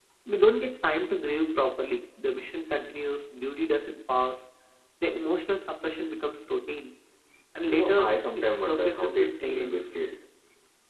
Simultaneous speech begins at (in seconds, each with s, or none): 7.7 s